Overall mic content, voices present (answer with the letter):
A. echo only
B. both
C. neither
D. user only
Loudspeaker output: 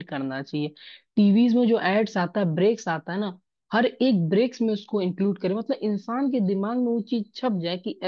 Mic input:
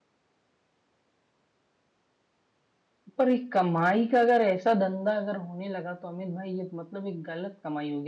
D